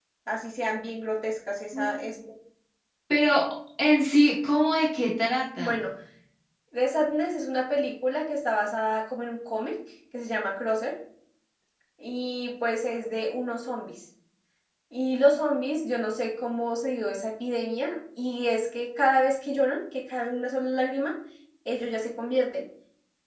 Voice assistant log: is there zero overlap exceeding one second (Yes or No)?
Yes